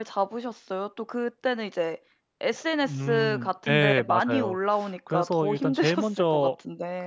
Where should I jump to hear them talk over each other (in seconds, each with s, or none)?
2.9 s